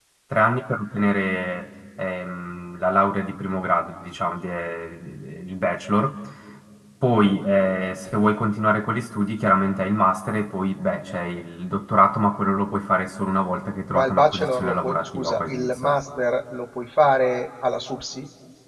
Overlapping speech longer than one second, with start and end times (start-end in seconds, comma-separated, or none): 13.9-16.0